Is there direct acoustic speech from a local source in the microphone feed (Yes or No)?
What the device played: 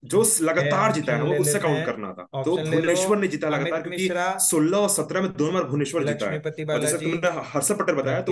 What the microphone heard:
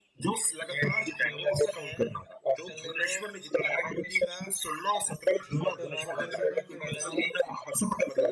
Yes